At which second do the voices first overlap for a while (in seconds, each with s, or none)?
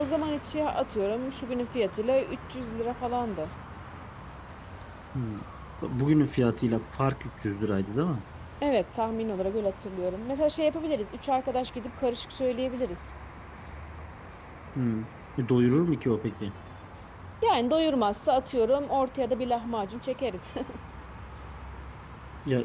none